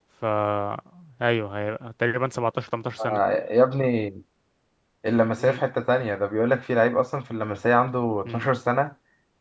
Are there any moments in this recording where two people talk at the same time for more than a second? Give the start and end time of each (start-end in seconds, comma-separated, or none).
none